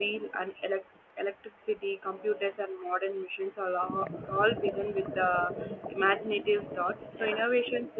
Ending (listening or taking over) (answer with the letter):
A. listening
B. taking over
A